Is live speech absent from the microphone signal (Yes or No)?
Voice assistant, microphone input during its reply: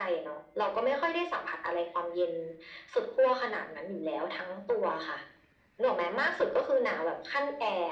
Yes